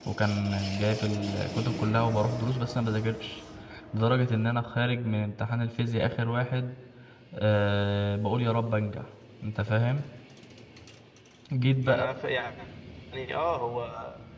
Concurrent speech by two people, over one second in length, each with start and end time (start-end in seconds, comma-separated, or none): none